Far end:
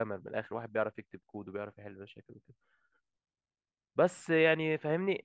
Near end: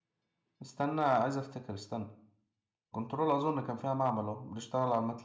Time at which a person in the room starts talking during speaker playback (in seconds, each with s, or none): 0.6 s